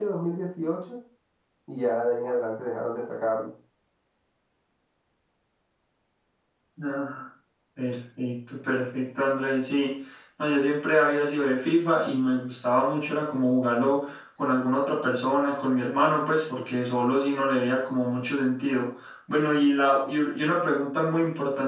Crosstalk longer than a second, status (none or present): none